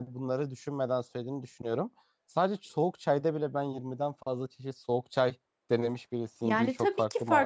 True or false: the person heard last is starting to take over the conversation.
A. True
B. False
A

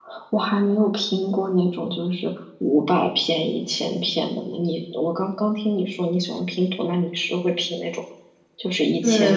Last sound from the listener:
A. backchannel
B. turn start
B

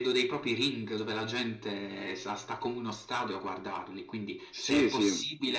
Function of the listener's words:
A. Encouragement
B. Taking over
A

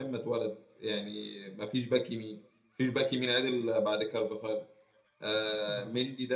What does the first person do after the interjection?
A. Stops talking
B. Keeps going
B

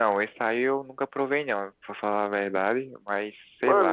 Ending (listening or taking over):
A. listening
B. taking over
B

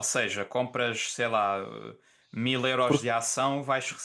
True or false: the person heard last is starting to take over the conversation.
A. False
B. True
A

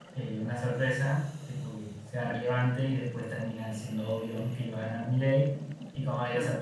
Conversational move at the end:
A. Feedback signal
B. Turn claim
A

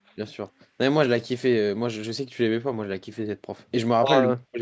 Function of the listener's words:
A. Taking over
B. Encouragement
B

